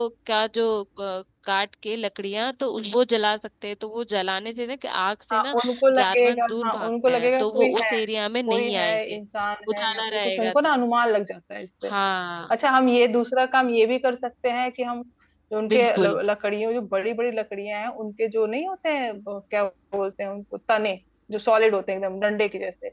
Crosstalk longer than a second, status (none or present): present